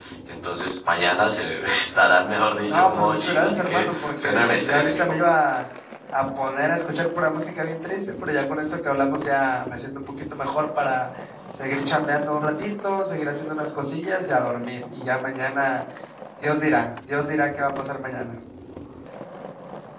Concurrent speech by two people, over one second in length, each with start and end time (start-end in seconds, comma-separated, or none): 2.7-5.3